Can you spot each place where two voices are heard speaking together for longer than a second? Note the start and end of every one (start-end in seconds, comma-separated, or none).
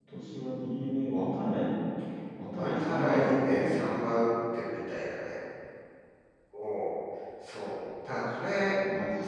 2.5-3.8